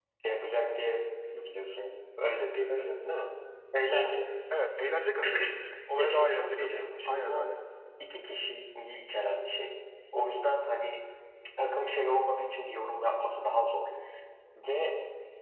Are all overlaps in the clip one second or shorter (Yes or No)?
No